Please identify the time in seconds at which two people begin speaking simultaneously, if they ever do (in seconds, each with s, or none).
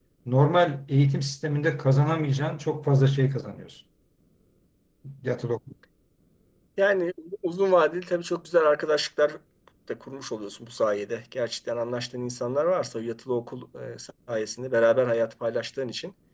none